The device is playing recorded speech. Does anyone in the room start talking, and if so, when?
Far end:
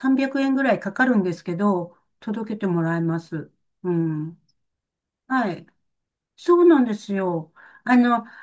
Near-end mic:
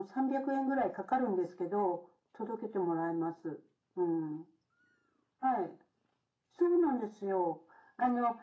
none

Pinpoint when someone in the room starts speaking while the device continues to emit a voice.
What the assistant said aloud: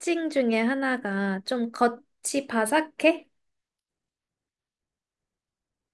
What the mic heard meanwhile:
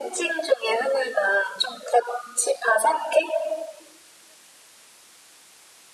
none

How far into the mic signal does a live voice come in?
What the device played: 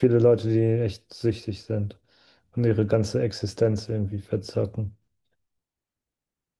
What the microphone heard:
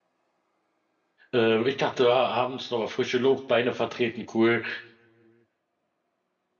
1.3 s

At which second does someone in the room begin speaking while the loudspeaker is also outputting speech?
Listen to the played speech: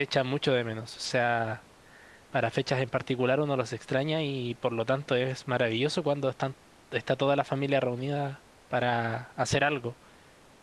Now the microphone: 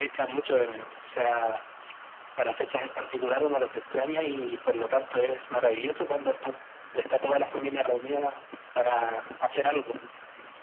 none

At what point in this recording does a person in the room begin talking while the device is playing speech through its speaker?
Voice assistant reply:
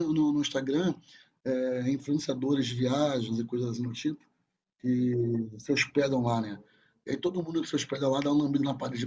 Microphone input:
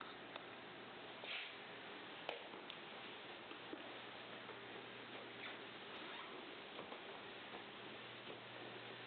none

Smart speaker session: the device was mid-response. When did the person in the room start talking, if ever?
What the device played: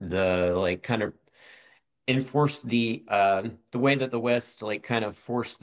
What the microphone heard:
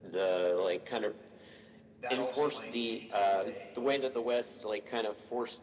2.0 s

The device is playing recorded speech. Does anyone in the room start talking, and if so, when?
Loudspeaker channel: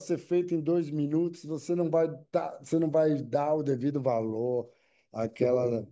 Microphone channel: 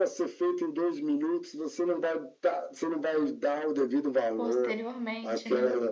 4.3 s

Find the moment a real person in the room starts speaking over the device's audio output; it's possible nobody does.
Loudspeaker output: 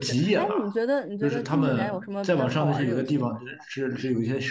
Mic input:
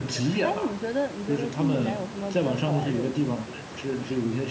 none

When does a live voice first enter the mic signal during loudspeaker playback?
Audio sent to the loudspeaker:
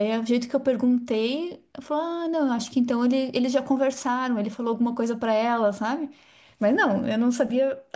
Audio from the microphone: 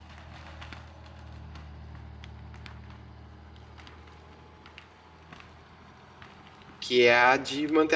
6.8 s

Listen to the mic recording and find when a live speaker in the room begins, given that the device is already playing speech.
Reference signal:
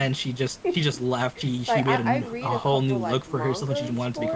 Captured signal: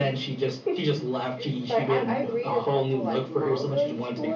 none

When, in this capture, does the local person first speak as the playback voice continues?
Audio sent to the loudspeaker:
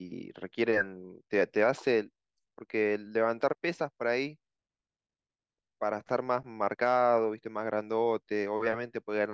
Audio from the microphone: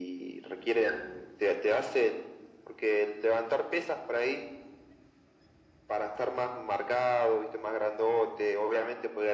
none

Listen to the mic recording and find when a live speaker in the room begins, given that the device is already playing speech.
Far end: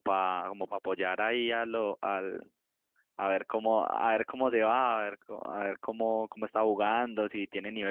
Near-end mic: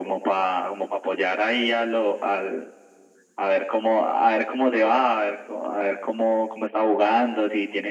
none

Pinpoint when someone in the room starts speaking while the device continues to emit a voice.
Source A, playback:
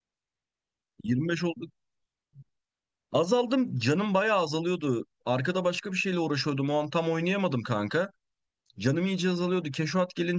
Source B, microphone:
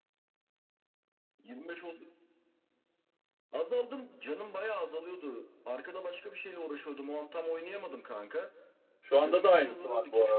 9.0 s

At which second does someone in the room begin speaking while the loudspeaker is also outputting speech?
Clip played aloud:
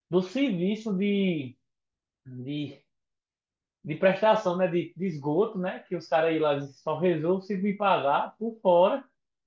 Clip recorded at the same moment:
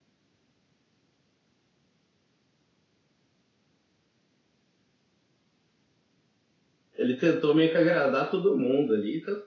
7.0 s

